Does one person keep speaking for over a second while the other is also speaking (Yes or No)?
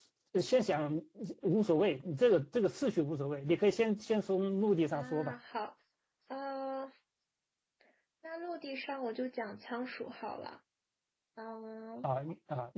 No